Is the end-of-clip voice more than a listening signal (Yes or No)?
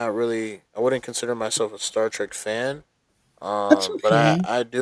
No